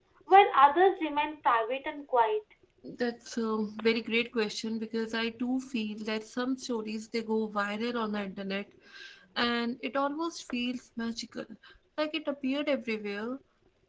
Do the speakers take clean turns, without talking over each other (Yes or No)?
Yes